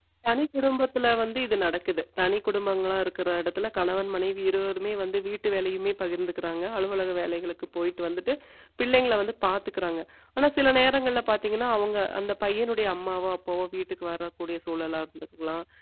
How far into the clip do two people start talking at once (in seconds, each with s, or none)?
none